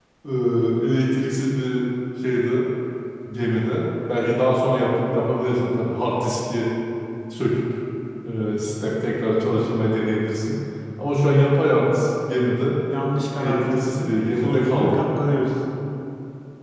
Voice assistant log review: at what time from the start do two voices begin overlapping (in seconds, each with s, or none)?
13.4 s